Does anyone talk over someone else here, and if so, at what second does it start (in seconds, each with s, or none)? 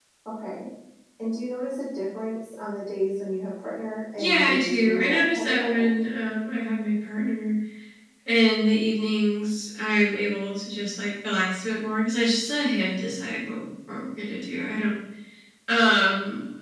4.2 s